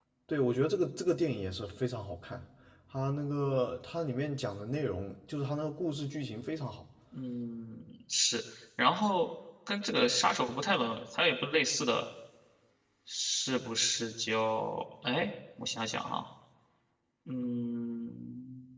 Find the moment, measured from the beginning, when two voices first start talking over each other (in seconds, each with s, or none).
none